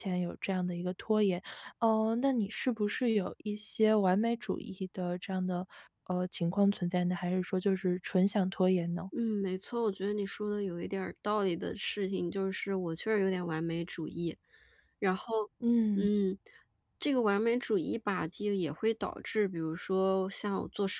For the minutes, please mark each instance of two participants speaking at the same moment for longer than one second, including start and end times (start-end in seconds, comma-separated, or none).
none